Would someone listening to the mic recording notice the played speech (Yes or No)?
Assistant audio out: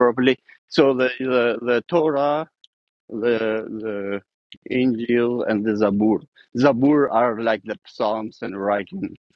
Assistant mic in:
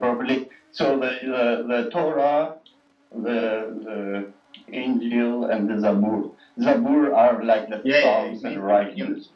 Yes